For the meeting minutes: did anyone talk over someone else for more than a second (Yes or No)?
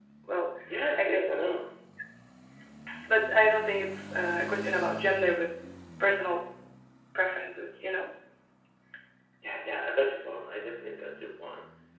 No